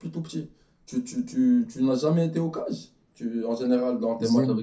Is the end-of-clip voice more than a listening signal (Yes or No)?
Yes